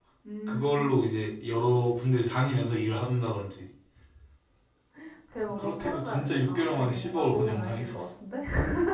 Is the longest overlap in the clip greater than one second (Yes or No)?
Yes